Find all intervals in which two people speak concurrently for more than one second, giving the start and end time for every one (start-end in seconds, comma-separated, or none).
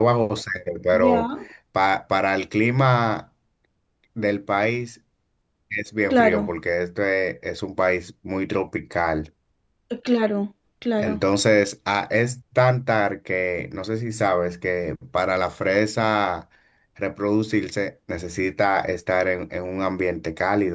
none